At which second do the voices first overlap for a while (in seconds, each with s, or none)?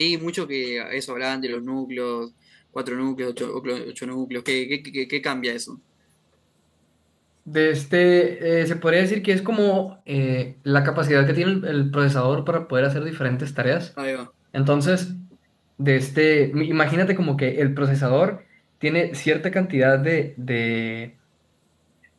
none